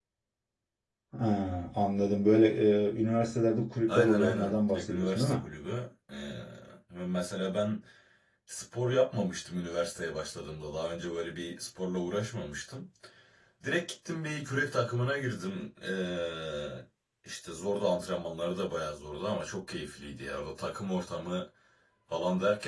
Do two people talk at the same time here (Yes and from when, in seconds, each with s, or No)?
Yes, from 3.9 s